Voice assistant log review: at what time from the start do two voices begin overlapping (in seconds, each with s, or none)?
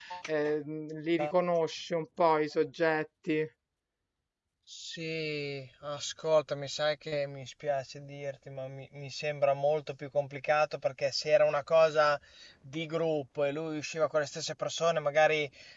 none